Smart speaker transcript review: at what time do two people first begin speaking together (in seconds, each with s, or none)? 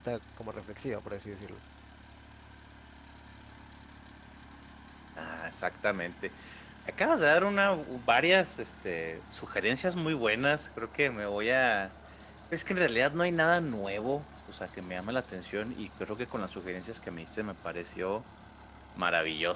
none